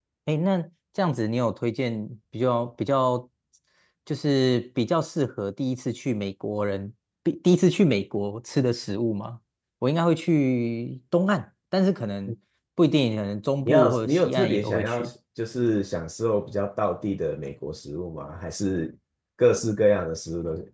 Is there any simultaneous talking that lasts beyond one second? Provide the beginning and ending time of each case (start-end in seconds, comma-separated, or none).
13.6-15.1